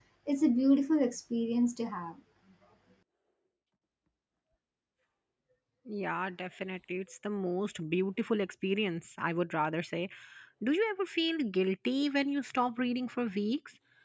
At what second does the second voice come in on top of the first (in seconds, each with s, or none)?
none